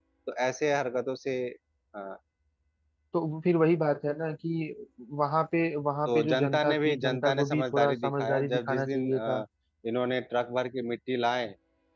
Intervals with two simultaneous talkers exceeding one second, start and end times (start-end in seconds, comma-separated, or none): 6.1-9.4